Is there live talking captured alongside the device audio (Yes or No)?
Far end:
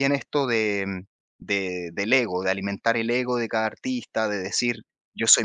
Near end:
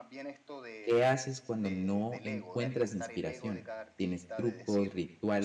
Yes